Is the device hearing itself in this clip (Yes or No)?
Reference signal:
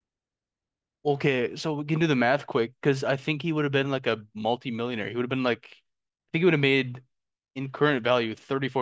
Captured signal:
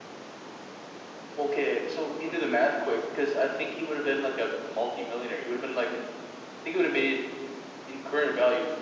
Yes